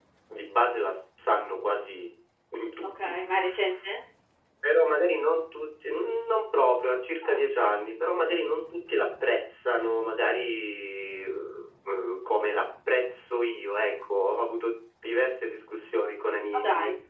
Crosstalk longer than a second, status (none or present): none